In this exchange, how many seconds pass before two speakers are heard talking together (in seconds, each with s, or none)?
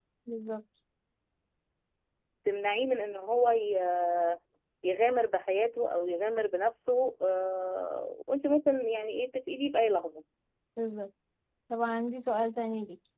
none